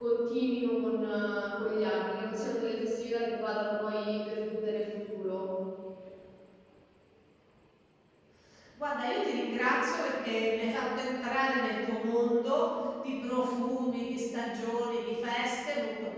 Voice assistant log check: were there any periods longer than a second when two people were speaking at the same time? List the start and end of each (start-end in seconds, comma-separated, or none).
none